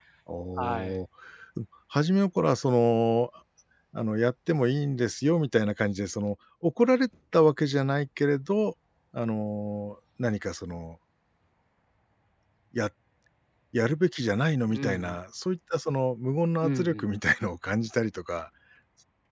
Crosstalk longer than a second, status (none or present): none